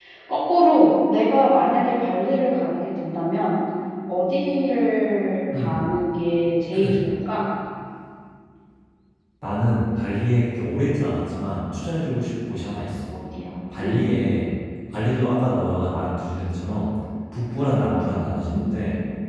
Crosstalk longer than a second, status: none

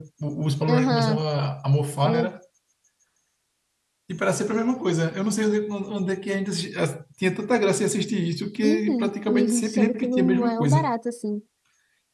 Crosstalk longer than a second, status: present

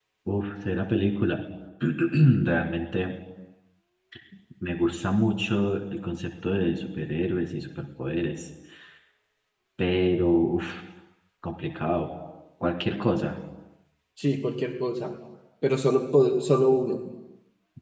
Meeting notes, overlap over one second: none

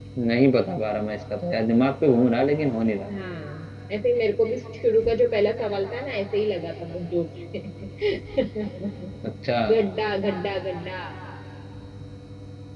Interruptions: none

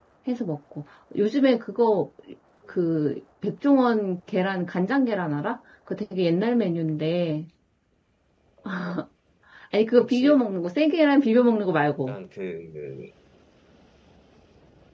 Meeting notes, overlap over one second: none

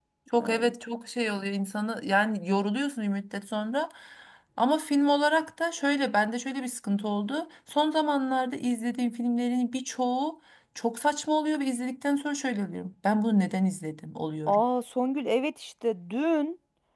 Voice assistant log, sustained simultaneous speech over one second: none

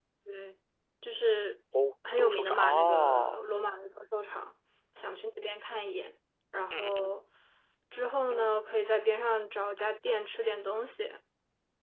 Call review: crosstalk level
present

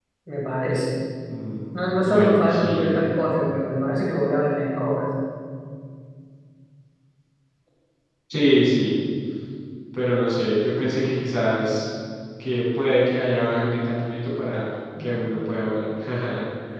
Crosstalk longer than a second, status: present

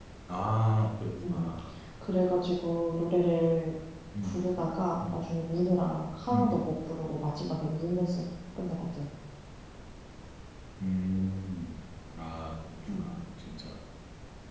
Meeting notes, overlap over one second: none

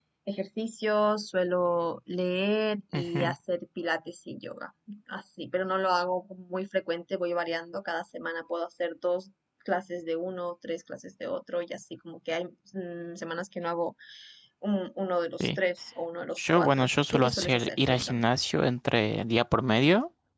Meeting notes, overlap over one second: present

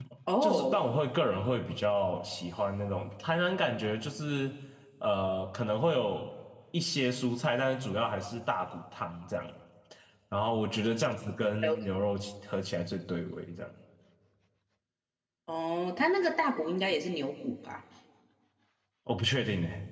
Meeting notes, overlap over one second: none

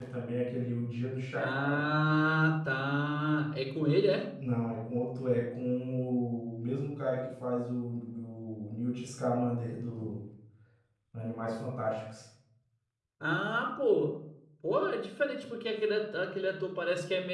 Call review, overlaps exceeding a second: none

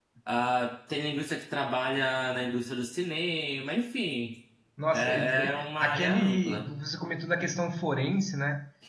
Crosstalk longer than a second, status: present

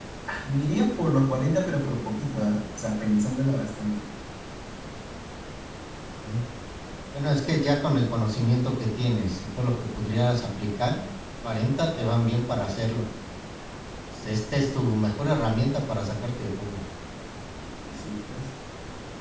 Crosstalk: none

